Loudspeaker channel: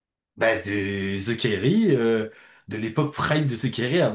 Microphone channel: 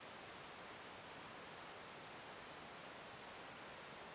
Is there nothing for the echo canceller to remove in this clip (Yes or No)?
Yes